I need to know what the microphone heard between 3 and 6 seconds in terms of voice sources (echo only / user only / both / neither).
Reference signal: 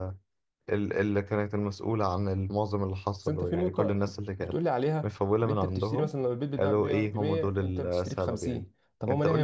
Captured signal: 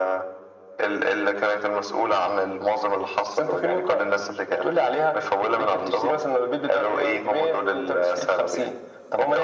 echo only